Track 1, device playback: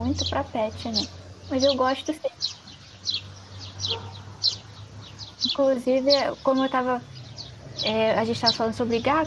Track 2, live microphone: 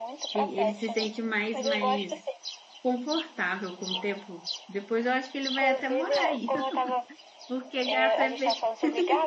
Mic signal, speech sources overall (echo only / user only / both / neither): both